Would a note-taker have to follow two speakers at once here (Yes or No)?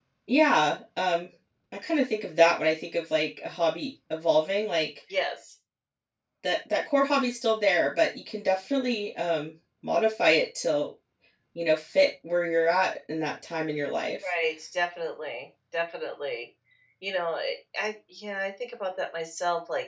No